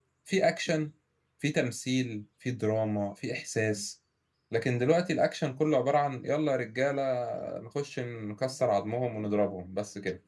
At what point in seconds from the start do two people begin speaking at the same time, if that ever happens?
none

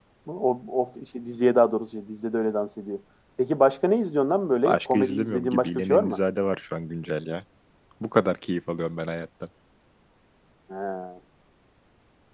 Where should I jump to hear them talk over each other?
4.7 s

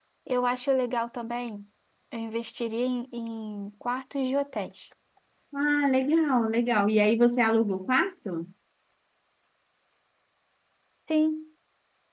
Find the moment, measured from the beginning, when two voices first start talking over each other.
none

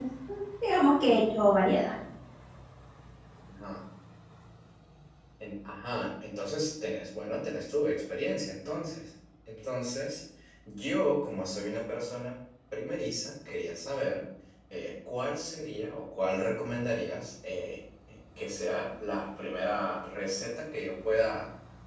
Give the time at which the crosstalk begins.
none

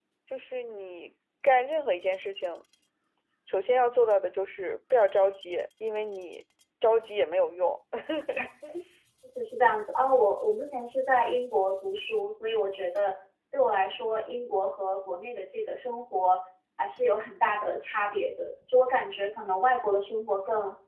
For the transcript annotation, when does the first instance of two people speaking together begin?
none

